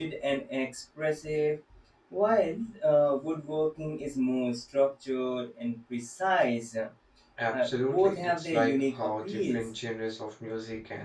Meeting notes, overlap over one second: present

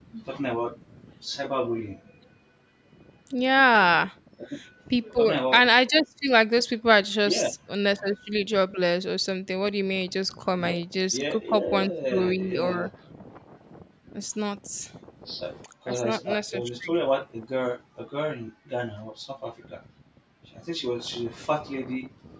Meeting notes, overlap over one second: present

